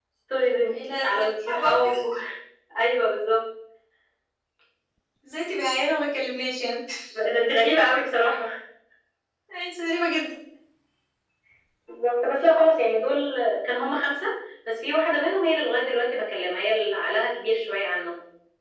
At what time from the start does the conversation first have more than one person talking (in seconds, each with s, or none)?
0.7 s